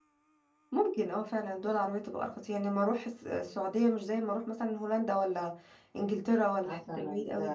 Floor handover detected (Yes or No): Yes